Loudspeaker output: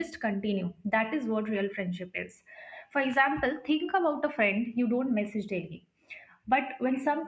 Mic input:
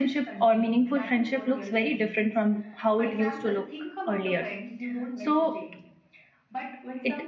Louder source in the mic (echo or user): user